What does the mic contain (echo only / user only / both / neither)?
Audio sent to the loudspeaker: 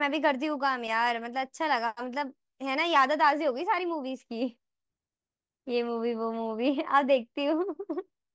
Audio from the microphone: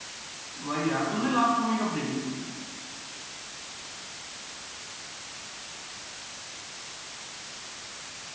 user only